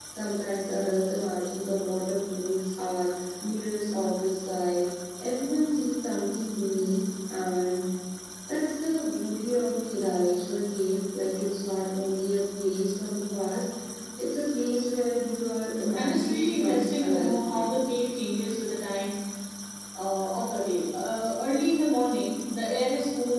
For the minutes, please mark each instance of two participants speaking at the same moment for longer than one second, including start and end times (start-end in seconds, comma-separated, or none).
15.9-17.6